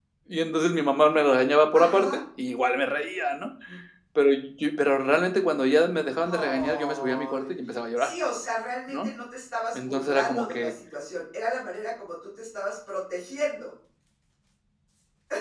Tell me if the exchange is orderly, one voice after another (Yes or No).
No